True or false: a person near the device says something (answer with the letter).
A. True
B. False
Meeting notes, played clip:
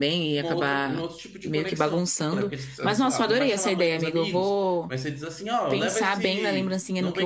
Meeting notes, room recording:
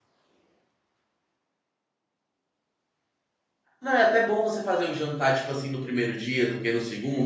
A